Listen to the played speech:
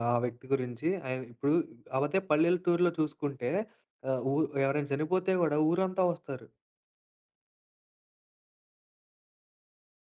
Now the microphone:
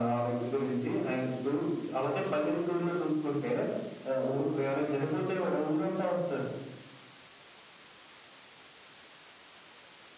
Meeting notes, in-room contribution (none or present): none